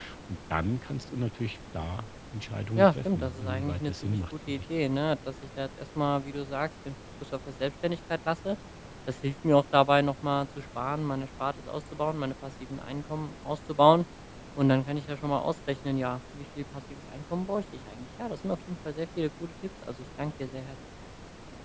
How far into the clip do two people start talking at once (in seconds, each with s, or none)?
2.8 s